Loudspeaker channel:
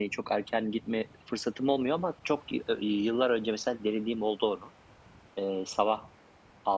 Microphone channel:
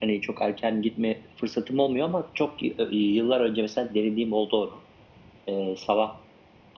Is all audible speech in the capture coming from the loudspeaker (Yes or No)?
Yes